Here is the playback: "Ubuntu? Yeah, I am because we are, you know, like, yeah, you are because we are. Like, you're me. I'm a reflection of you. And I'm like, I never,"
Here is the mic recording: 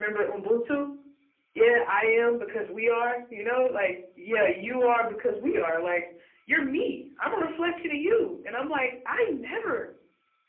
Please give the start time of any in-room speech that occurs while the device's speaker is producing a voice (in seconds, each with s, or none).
none